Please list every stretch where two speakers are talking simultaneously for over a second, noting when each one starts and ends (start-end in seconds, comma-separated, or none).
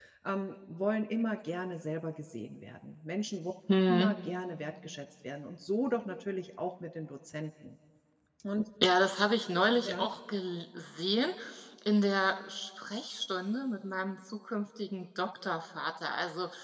none